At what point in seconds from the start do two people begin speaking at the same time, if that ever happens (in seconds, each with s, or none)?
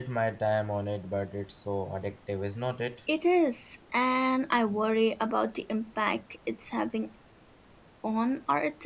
none